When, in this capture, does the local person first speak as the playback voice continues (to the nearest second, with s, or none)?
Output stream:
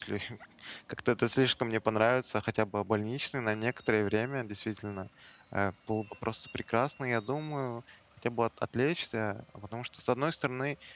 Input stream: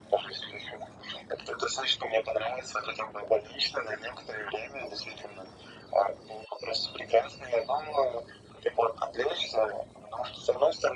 none